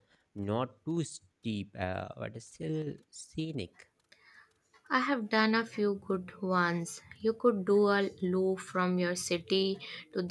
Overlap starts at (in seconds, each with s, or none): none